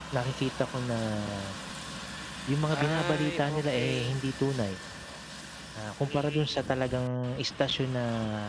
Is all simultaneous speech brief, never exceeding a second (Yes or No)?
No